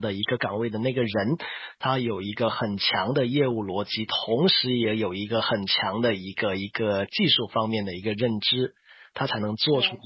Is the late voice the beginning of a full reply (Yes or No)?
No